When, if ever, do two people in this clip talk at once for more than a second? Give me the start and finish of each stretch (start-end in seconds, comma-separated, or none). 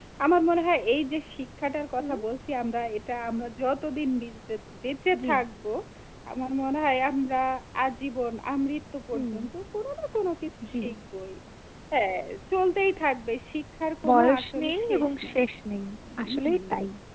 14.1-15.4